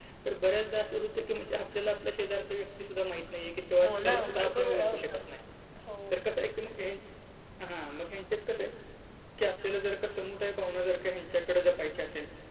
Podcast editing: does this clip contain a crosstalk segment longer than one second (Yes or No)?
Yes